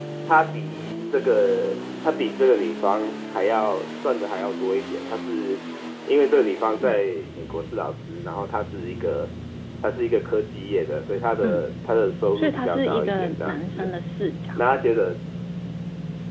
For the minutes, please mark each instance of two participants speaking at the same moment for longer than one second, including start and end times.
12.4-13.9

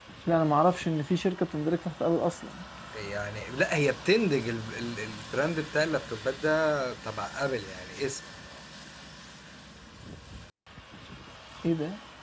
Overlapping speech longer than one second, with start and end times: none

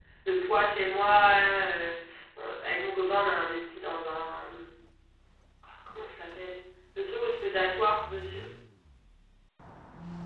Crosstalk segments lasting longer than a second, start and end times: none

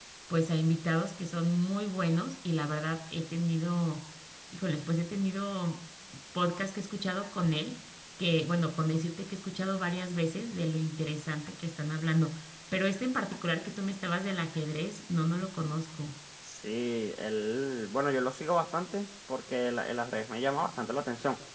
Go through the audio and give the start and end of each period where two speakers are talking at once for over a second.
none

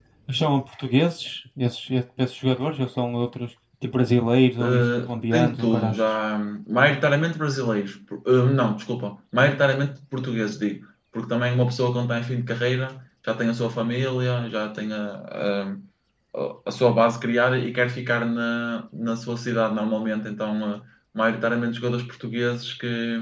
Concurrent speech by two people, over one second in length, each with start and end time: 4.6-6.0

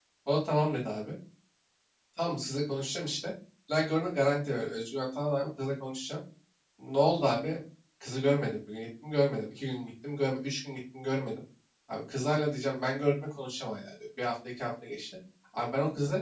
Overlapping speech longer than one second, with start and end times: none

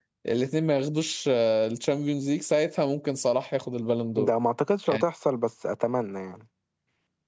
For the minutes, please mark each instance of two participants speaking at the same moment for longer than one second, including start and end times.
none

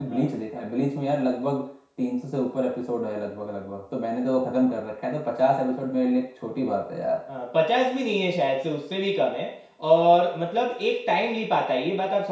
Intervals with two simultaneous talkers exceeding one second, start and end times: none

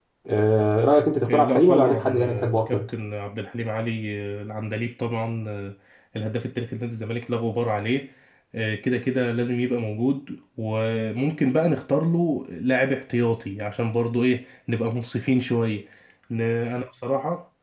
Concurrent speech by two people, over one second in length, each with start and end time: 1.3-2.8

